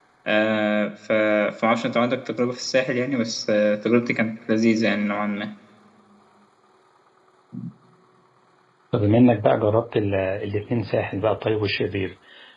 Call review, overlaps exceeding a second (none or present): none